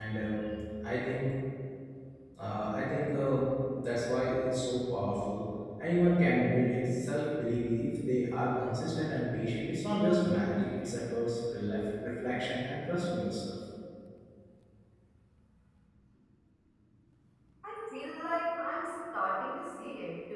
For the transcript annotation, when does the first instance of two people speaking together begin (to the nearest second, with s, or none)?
none